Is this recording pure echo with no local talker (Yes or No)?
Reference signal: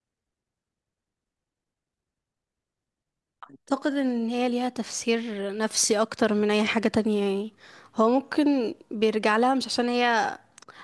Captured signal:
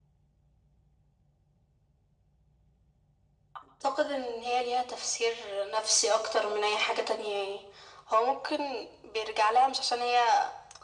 Yes